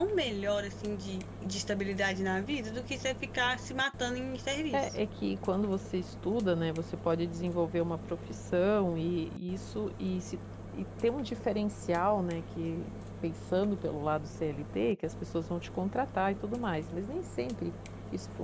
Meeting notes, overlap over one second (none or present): none